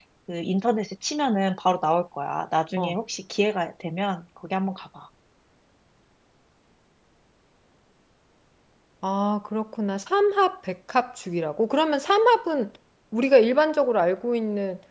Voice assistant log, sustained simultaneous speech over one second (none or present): none